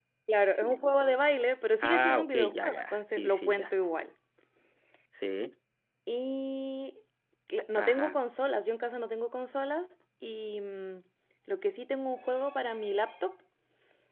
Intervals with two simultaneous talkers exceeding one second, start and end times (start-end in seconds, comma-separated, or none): 1.8-3.7